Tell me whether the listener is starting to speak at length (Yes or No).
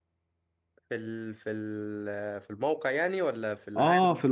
Yes